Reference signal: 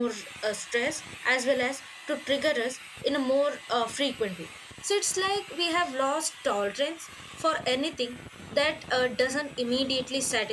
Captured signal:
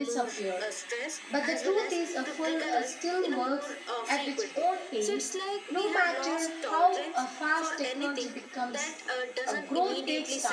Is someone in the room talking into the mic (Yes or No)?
Yes